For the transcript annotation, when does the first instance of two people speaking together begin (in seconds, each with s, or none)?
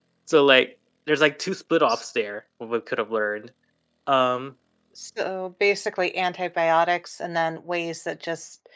none